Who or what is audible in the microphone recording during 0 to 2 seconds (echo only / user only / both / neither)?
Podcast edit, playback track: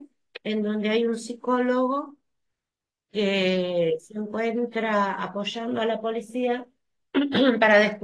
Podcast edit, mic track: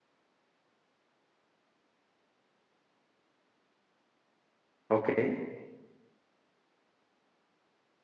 neither